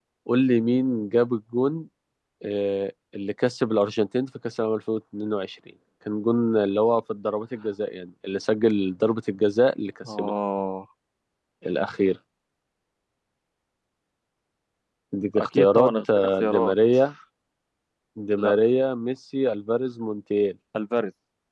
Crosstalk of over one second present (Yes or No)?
Yes